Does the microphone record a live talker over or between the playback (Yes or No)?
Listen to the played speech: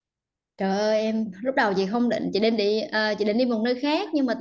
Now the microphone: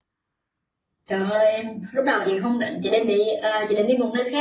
No